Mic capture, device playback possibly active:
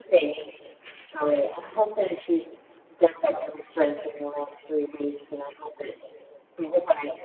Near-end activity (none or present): none